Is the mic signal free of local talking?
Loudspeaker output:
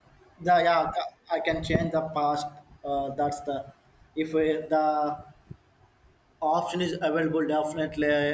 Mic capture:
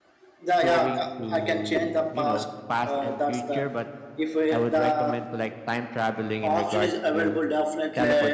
No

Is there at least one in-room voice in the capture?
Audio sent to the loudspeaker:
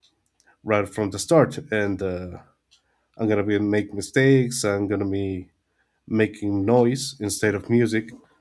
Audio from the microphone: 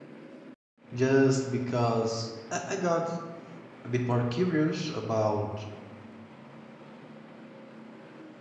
Yes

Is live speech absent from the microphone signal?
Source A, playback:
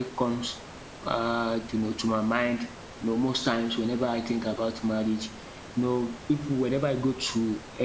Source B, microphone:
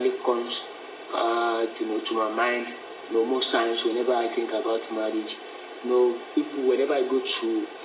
Yes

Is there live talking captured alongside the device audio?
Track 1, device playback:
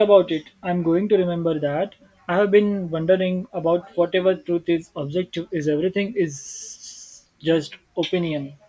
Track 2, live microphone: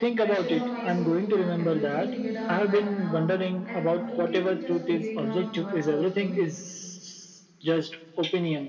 Yes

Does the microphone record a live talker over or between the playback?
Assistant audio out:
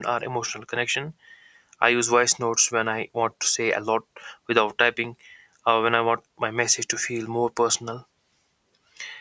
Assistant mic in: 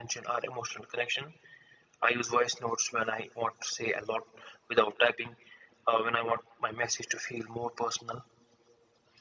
No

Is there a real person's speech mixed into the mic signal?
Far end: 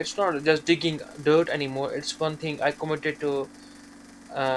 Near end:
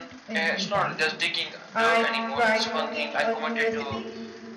Yes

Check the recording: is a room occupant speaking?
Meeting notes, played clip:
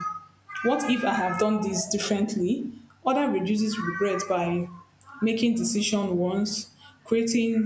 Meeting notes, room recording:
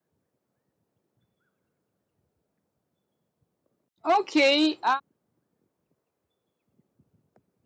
Yes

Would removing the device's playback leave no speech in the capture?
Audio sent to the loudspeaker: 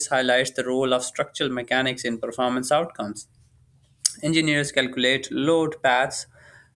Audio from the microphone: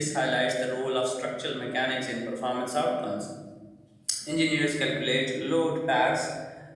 Yes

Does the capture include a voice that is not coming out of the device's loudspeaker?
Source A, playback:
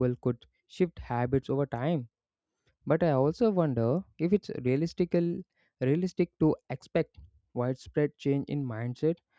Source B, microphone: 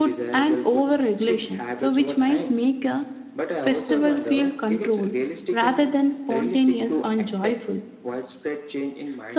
Yes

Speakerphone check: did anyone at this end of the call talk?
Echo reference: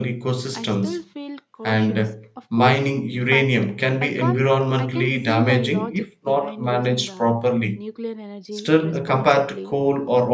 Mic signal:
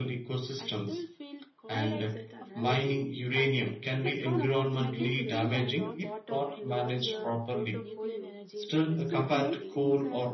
Yes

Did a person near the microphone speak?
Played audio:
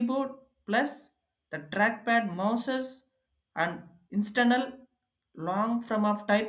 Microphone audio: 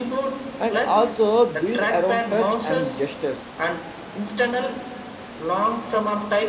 Yes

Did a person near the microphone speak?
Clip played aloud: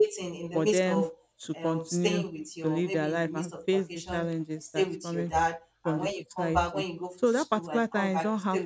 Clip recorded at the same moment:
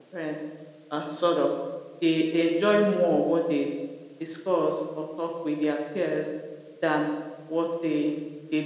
Yes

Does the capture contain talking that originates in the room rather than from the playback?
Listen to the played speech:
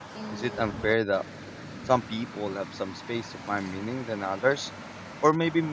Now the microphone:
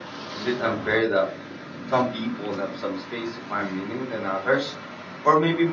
No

